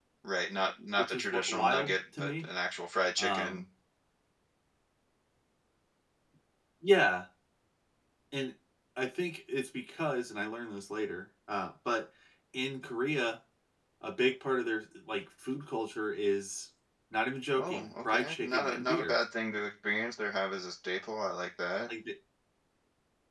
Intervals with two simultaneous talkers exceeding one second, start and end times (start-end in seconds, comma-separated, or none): 1.0-2.5, 17.6-19.1